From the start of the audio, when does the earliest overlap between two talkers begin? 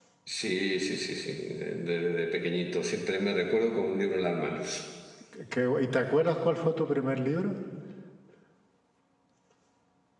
none

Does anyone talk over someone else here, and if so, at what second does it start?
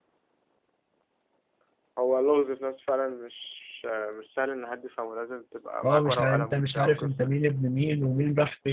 5.8 s

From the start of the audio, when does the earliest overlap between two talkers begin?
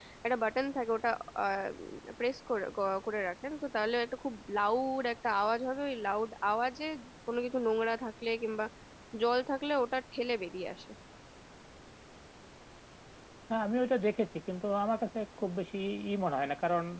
none

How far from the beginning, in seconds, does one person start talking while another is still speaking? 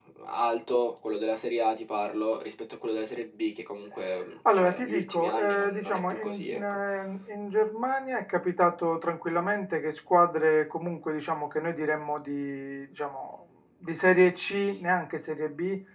4.4 s

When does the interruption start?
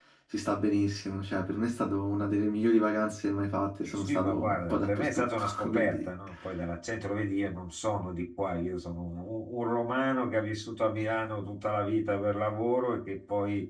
3.8 s

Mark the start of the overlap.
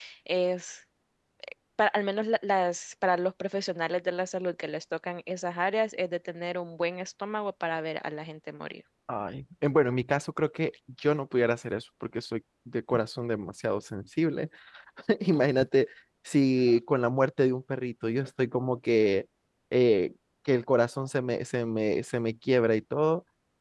none

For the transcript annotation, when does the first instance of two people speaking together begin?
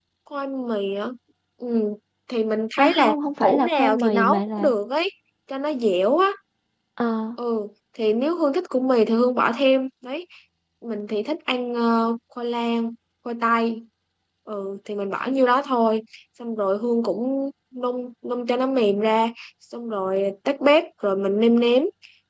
2.8 s

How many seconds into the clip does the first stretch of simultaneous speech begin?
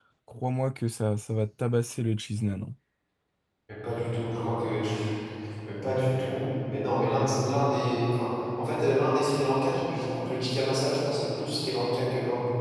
none

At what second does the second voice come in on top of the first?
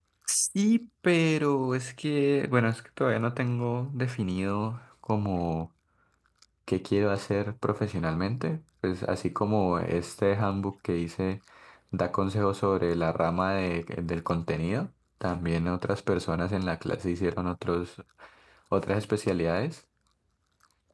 none

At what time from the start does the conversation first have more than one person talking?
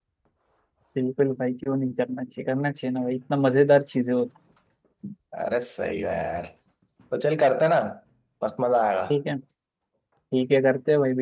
none

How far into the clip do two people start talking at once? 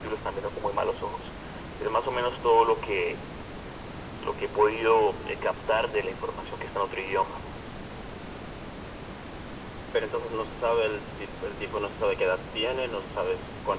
none

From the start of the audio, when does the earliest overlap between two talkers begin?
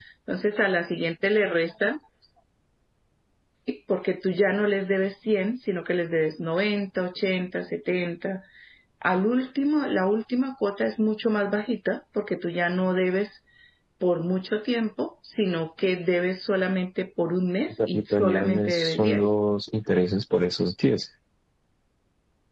17.8 s

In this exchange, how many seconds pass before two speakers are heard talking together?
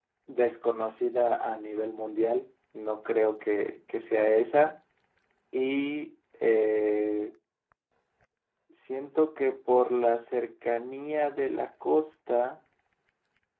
none

